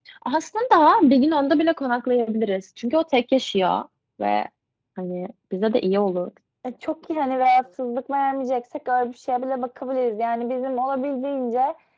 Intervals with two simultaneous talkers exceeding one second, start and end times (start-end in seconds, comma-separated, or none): none